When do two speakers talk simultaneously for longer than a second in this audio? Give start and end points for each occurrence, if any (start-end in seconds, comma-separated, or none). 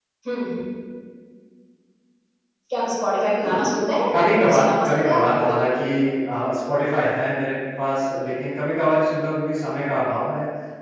4.1-5.5